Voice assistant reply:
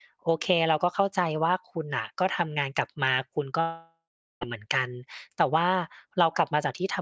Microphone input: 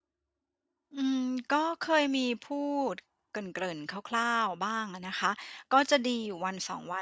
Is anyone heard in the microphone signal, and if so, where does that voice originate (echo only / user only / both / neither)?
user only